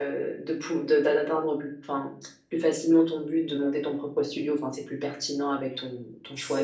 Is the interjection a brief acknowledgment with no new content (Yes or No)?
No